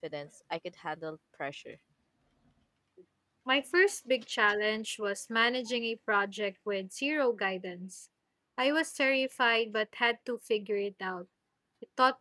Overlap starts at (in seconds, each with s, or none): none